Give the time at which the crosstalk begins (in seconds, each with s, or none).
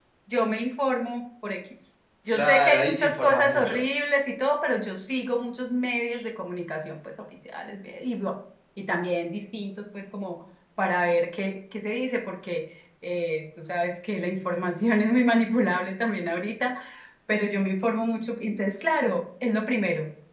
2.3 s